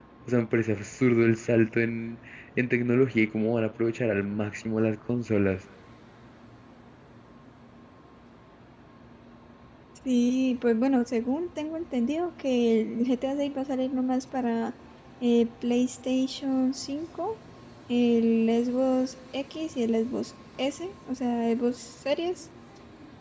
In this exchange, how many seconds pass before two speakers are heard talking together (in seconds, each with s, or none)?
none